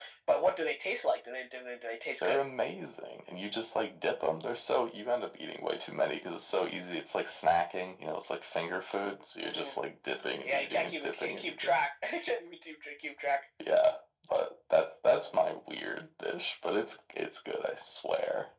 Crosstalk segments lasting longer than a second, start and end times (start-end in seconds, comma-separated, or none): 10.4-11.8